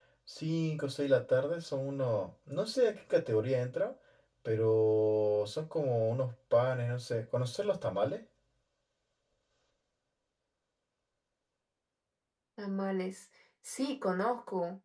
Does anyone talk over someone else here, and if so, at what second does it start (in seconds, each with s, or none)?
none